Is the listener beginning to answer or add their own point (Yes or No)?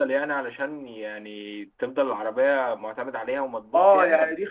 Yes